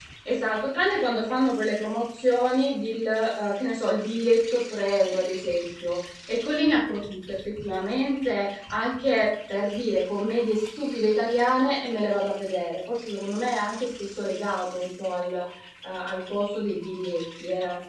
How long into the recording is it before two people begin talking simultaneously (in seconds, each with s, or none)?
none